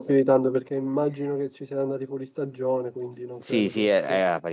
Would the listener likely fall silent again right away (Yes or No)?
No